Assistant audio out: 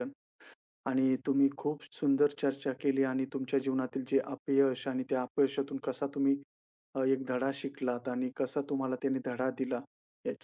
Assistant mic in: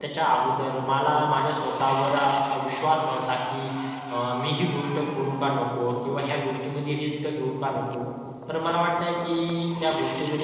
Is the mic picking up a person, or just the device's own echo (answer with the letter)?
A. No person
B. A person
B